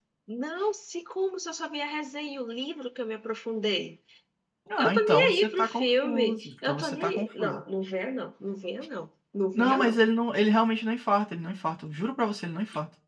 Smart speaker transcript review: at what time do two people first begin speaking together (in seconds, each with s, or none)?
4.8 s